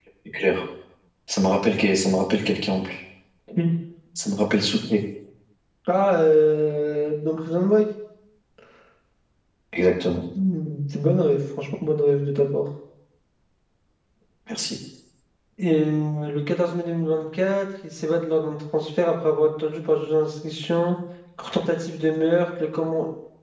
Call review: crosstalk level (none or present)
none